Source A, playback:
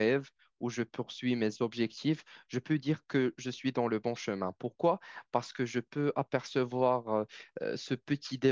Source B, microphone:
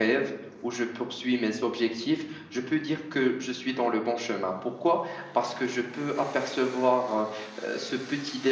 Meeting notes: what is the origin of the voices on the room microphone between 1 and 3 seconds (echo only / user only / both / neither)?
echo only